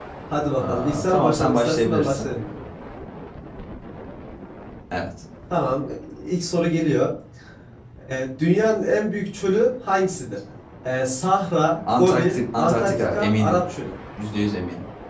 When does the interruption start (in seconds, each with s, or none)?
0.6 s